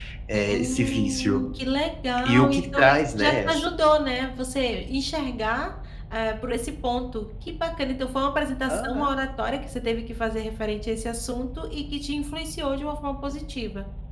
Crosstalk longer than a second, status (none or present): present